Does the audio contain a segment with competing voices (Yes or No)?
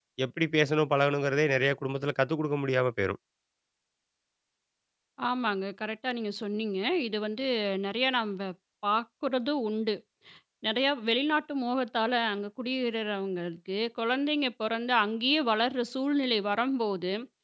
No